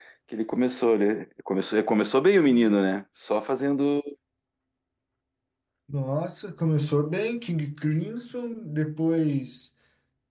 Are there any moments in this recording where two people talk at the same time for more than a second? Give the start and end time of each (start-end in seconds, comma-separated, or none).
none